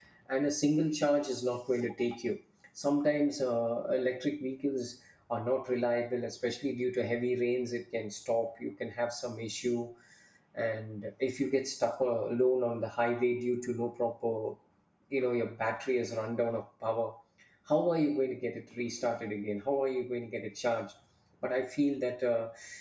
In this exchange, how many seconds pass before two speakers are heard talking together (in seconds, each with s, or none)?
none